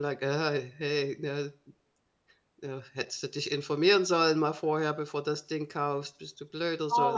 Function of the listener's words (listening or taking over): taking over